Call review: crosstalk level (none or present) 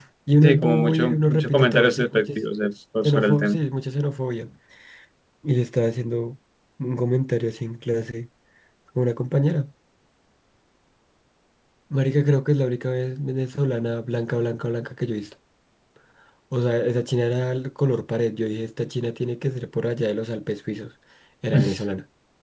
present